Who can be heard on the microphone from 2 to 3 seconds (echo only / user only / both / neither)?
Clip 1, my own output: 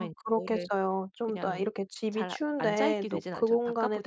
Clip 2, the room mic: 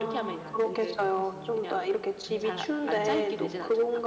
both